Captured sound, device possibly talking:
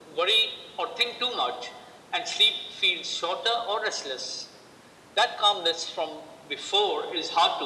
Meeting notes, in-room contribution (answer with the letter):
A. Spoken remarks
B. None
B